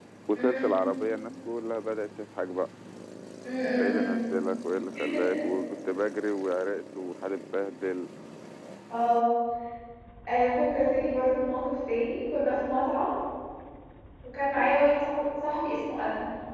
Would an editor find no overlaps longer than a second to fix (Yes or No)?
Yes